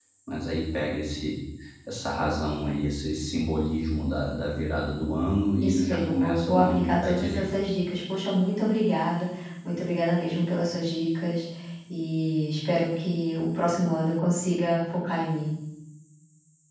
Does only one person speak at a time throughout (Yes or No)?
No